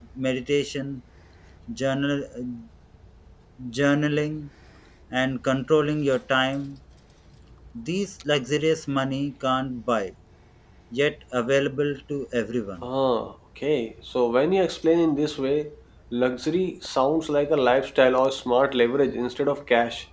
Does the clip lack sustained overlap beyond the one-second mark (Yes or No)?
Yes